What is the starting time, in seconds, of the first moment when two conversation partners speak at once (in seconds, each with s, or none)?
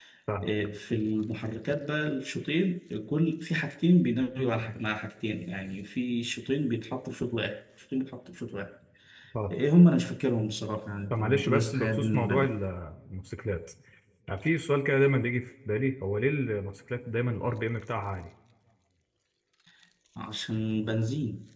11.1 s